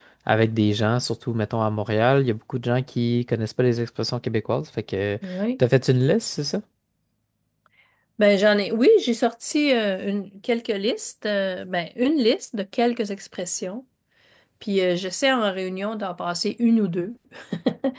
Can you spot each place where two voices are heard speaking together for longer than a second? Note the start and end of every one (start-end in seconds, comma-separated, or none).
none